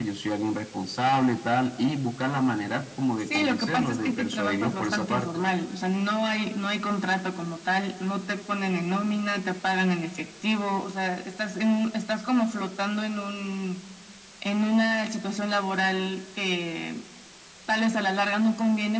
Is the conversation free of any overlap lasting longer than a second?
No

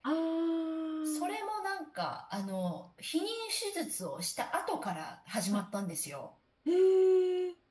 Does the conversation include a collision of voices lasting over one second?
No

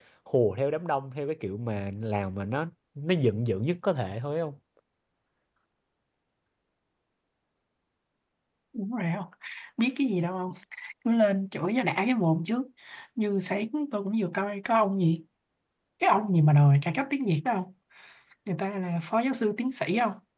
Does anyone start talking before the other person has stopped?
No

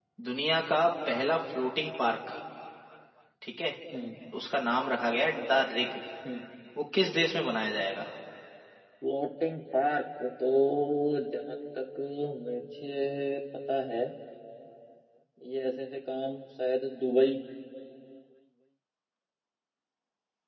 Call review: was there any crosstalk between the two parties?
No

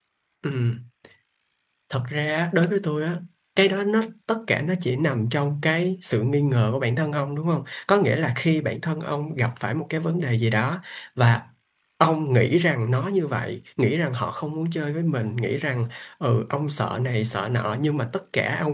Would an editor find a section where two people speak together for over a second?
No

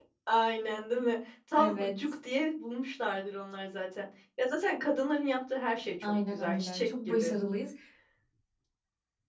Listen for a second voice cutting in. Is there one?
Yes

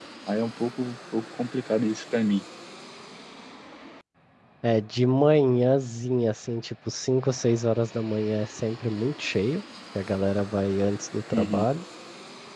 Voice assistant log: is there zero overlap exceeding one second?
Yes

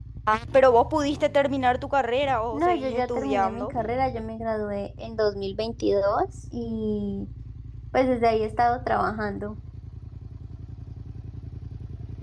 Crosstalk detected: Yes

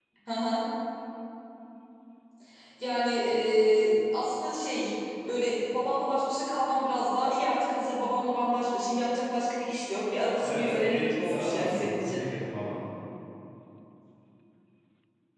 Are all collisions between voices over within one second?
No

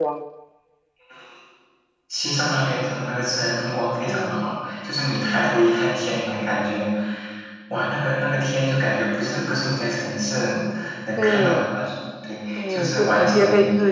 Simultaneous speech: Yes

